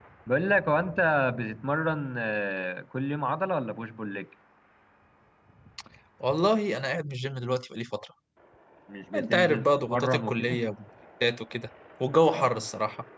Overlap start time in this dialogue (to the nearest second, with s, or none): 9 s